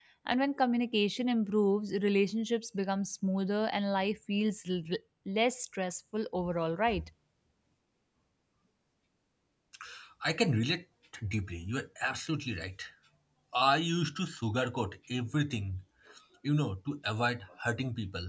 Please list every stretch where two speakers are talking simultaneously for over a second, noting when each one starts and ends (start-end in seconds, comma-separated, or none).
none